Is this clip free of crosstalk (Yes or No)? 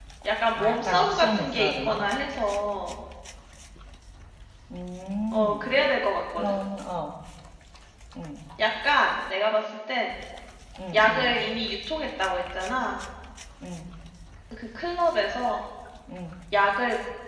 No